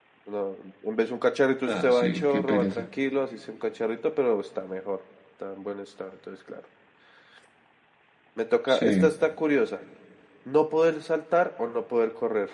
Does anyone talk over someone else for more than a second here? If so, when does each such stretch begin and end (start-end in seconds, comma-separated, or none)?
1.7-2.9